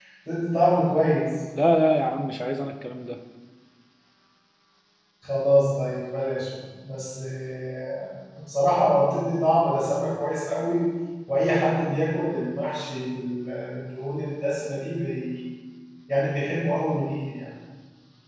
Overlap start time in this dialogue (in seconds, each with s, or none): none